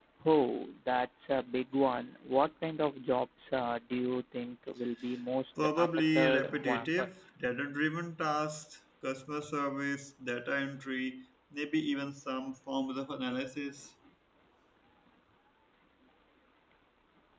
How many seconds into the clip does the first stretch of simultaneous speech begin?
5.6 s

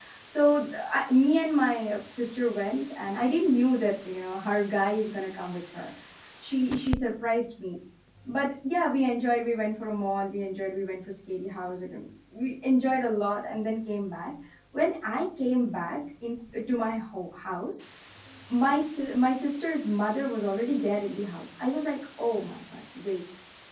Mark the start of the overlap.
none

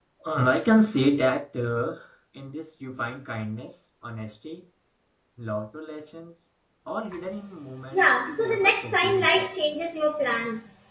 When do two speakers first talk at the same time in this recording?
7.9 s

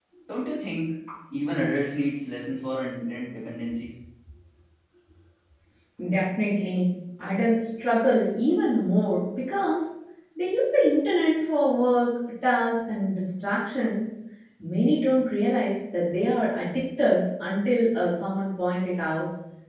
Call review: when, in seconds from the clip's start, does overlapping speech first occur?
none

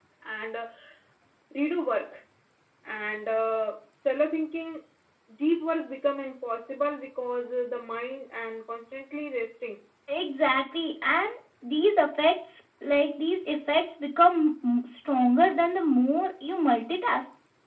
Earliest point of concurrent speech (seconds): none

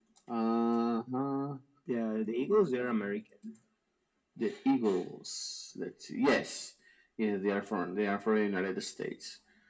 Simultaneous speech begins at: none

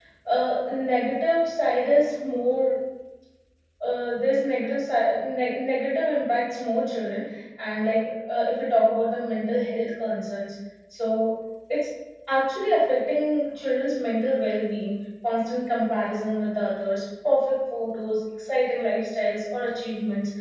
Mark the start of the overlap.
none

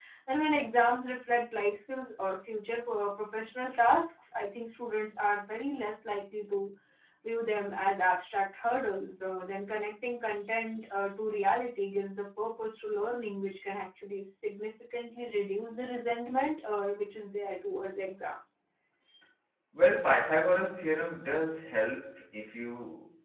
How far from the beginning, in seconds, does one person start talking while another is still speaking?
none

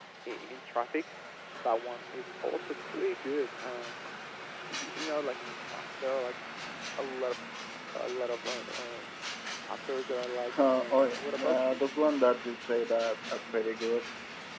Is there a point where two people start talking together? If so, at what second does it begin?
10.5 s

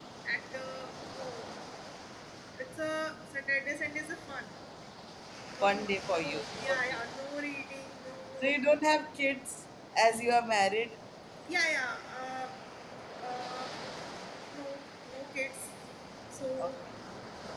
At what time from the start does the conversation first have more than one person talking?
5.6 s

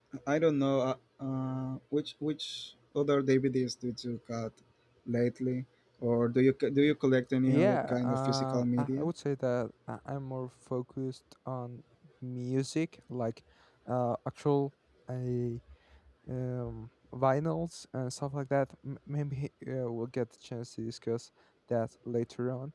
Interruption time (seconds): 7.5 s

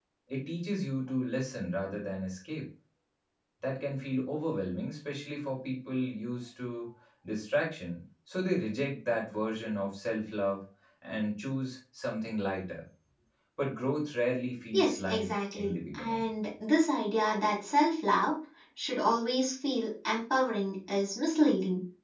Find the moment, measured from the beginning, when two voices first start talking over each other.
14.7 s

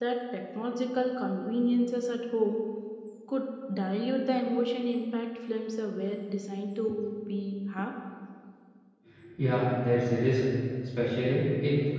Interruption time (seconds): none

